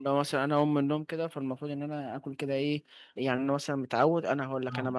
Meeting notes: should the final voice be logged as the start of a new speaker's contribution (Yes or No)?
No